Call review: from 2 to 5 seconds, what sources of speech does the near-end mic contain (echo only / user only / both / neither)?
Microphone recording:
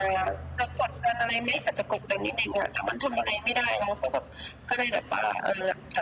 echo only